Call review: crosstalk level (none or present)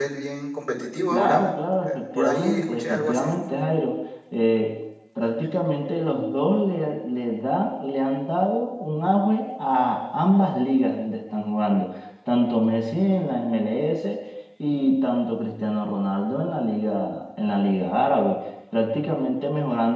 present